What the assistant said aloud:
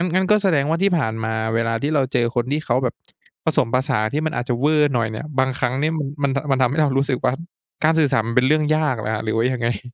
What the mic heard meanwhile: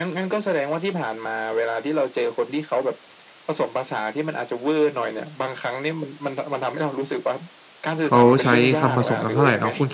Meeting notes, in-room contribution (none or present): present